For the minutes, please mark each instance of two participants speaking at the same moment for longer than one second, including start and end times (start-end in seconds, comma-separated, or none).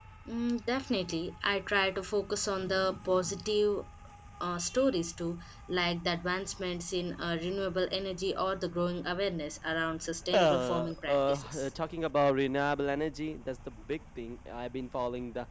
10.3-11.7